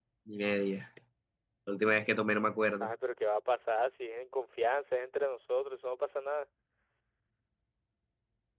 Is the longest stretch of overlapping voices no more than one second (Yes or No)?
Yes